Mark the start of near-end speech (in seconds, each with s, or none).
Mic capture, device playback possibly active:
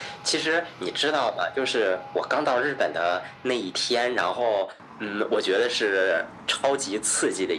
none